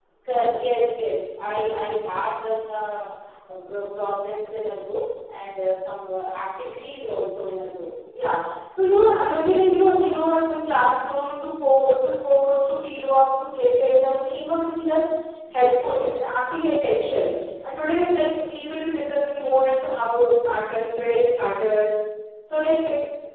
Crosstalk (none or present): none